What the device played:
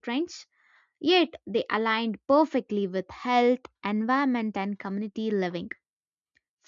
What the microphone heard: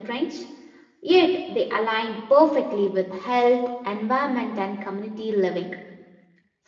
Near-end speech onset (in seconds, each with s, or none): none